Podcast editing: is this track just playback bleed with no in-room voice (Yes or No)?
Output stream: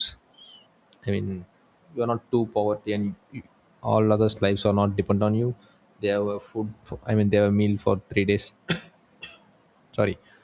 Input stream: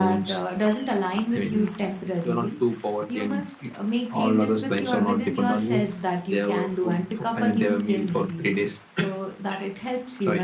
No